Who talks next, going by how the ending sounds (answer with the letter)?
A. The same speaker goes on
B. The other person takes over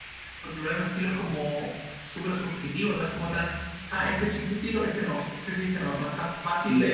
B